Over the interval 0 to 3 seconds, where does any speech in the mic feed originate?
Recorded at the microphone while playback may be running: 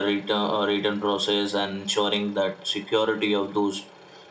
echo only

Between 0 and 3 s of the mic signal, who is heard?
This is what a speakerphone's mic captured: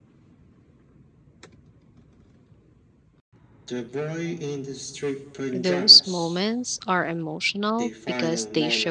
neither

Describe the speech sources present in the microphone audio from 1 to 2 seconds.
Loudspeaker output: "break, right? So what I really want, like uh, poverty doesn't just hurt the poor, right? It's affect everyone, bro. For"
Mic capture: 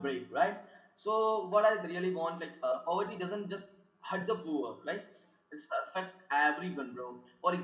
echo only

